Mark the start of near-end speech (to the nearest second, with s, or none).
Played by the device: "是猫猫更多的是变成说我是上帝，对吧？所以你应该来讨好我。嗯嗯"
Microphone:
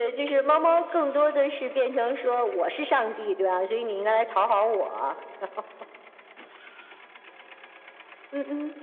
none